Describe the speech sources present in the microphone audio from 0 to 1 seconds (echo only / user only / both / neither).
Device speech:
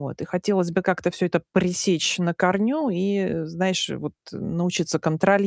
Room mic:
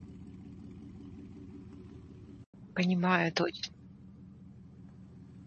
neither